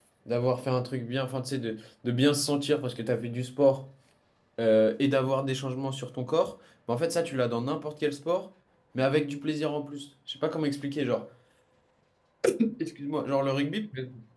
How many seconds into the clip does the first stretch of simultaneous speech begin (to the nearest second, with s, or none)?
none